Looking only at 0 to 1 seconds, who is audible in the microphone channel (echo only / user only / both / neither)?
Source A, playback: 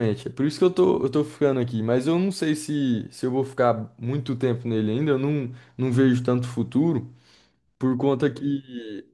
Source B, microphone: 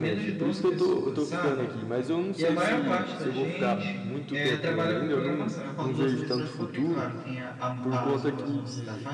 both